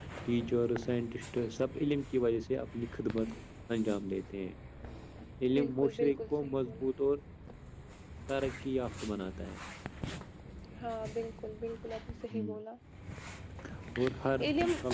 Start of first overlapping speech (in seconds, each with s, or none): 5.6 s